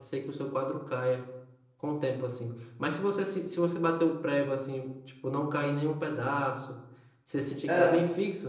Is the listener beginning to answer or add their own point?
No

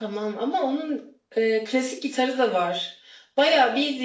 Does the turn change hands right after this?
No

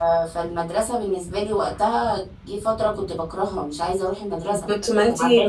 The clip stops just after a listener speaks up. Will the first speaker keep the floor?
No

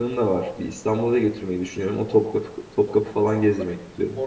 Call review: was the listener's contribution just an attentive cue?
No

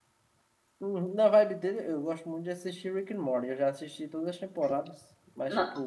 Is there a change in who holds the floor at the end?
No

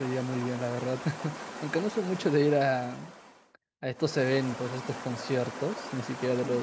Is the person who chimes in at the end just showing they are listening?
Yes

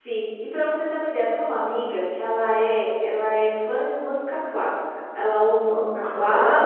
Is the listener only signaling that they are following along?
Yes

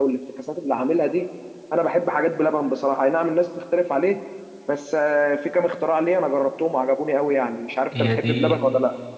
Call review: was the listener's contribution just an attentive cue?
No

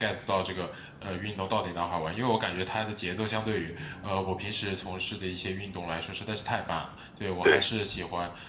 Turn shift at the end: No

